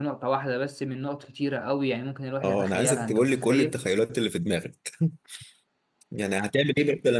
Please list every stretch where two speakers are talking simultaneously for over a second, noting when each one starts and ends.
2.4-3.8

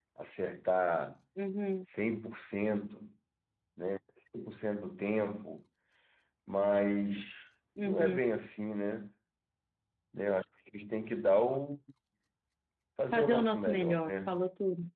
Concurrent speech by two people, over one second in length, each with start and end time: 13.1-14.4

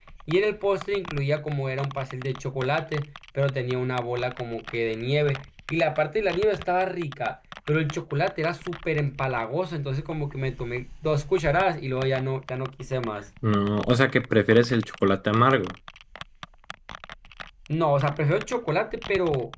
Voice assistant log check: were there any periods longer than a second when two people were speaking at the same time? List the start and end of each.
none

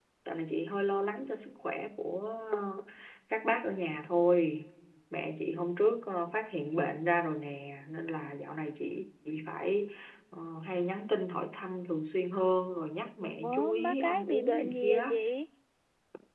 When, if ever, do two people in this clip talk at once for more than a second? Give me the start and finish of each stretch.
13.2-15.0

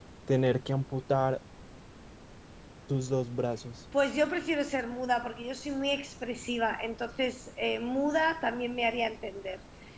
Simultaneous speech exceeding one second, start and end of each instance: none

